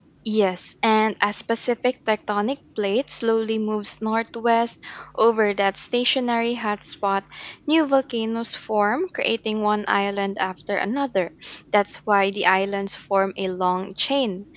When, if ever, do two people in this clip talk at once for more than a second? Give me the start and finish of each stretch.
none

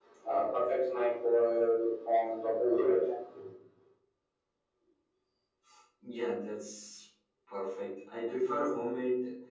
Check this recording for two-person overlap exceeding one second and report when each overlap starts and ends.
none

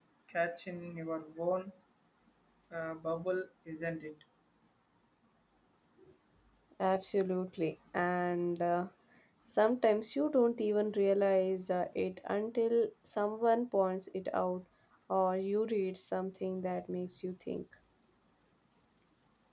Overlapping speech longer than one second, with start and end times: none

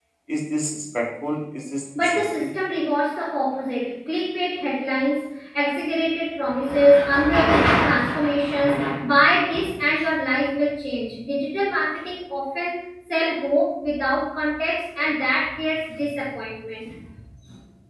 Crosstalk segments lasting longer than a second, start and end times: none

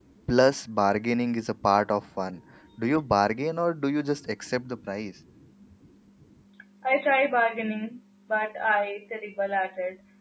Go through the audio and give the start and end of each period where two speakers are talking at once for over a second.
none

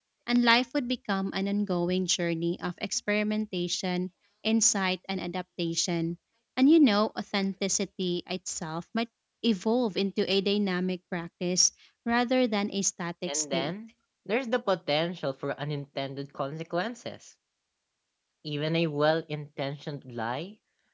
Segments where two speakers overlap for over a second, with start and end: none

